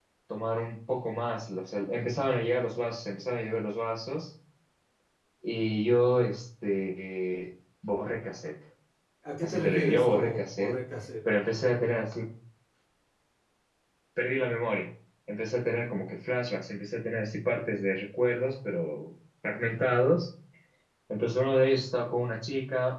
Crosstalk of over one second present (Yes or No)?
Yes